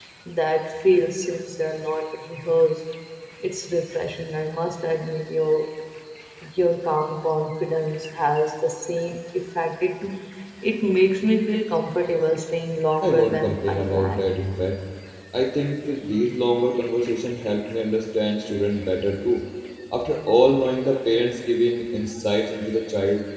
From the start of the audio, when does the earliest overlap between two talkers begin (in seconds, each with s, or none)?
13.0 s